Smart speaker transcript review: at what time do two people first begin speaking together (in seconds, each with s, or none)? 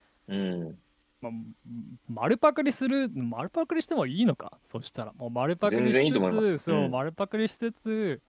5.6 s